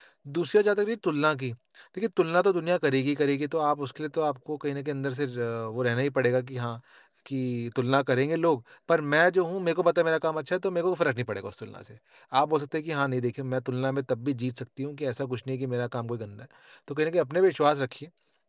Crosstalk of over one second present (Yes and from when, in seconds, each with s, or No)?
No